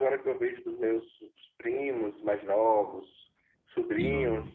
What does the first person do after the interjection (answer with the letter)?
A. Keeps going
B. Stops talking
A